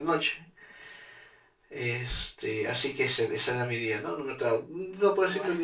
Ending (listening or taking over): listening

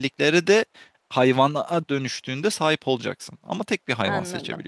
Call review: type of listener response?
taking over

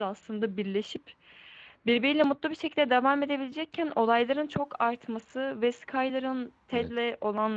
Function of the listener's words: listening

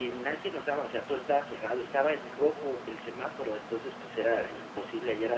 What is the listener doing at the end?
listening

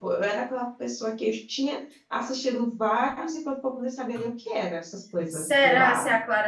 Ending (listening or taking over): taking over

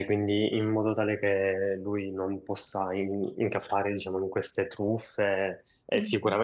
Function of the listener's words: listening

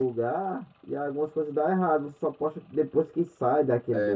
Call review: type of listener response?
taking over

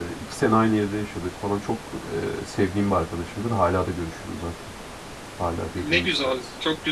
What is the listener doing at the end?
taking over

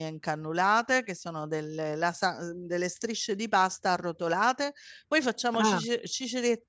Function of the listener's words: listening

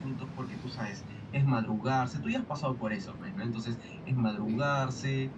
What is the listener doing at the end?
listening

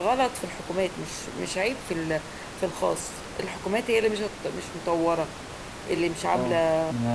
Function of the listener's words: taking over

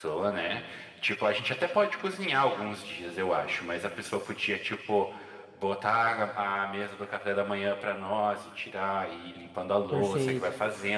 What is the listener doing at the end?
listening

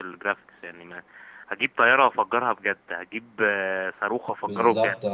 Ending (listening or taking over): listening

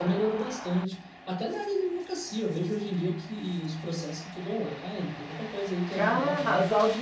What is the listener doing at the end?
taking over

